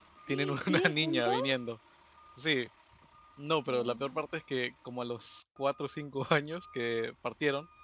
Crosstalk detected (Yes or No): Yes